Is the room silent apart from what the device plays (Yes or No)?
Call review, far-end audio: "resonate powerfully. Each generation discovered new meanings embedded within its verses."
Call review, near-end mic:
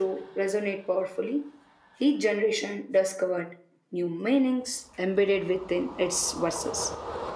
Yes